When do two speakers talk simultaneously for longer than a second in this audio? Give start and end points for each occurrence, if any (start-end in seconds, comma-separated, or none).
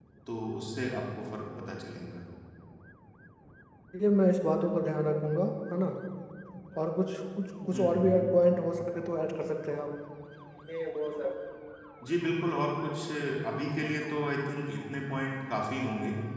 none